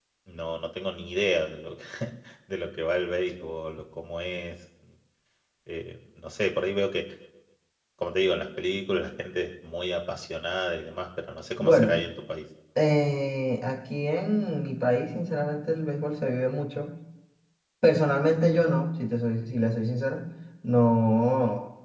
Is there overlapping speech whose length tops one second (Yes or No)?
No